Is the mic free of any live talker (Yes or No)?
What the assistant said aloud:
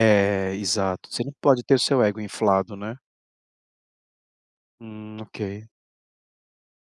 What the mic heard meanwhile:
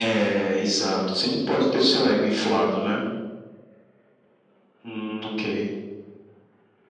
Yes